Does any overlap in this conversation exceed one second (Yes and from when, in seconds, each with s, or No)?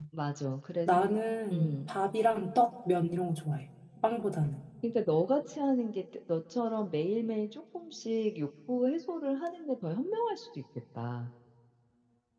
No